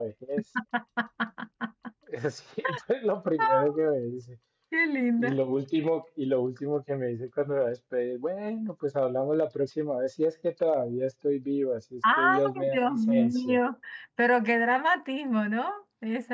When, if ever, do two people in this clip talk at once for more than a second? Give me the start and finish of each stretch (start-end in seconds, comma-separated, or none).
12.2-13.6